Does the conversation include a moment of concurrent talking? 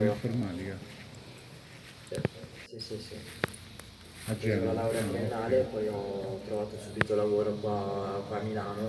Yes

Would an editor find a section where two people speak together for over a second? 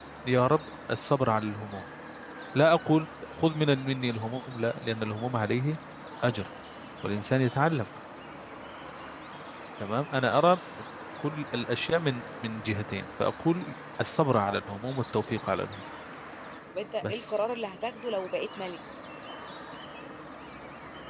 No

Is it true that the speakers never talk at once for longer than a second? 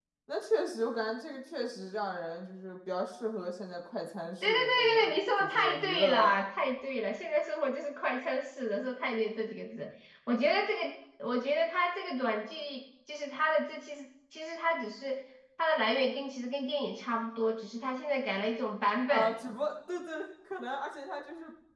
No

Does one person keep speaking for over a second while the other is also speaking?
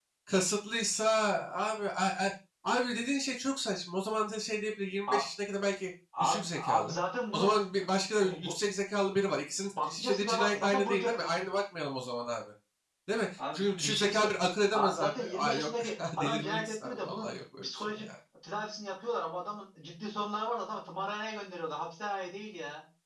Yes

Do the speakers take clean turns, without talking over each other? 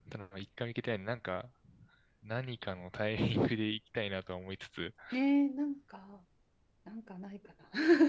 Yes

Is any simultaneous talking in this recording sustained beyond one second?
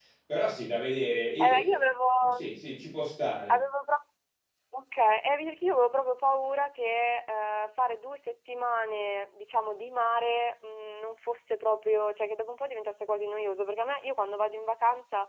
No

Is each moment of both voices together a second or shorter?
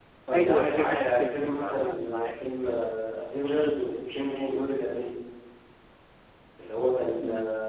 No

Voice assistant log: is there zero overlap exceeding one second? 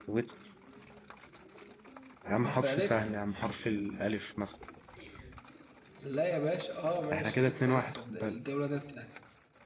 No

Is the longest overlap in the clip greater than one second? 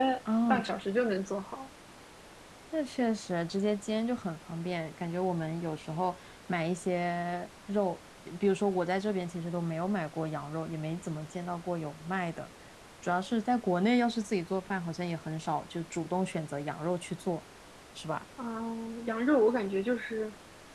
No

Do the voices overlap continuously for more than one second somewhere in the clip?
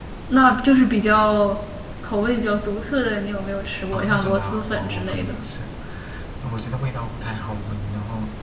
Yes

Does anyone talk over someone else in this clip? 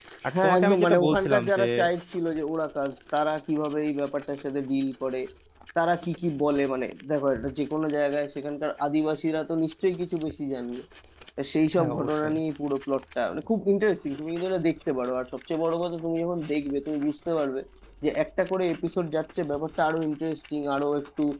Yes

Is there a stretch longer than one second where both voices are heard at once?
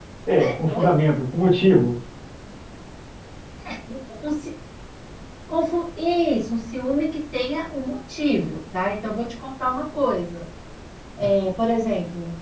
No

